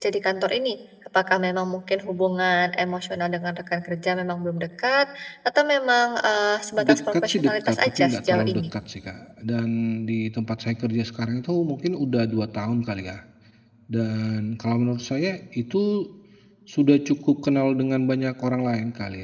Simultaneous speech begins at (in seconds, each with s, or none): 6.8 s